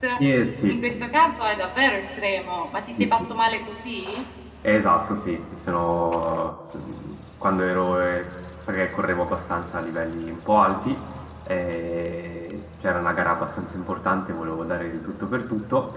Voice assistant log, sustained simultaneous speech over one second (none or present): none